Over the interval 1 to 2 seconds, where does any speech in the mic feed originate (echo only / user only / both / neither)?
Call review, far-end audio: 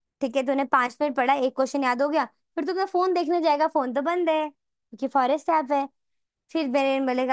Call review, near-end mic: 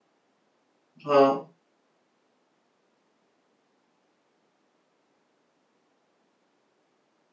user only